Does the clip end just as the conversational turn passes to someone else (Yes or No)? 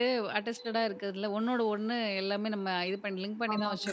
No